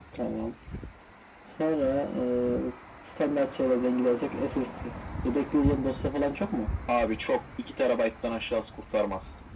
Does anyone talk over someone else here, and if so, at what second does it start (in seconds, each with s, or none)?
none